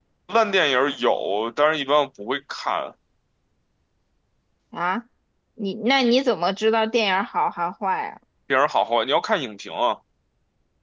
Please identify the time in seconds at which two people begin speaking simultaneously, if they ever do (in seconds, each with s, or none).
none